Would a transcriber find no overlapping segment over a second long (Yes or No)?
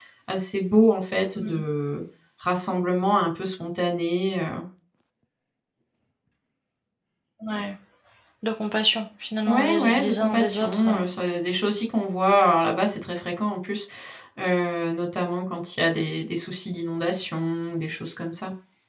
No